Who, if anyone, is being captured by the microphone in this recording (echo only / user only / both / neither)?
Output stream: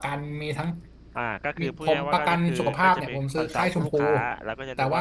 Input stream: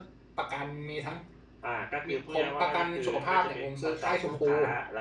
echo only